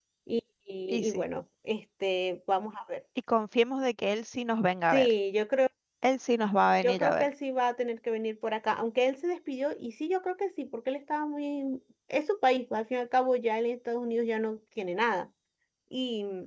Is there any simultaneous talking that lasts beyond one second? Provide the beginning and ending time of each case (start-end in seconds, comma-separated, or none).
none